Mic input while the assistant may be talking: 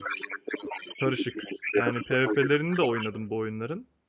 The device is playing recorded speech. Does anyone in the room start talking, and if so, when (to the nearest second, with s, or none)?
1 s